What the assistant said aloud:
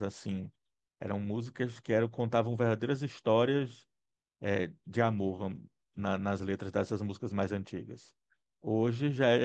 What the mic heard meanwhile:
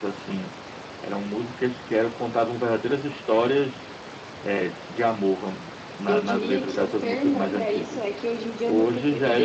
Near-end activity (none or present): present